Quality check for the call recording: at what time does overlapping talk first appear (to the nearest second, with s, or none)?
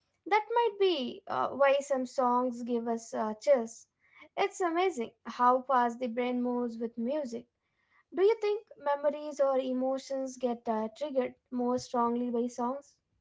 none